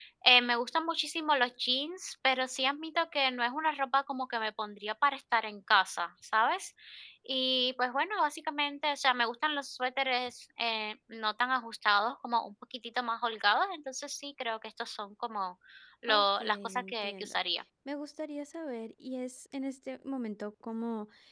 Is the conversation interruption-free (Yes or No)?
No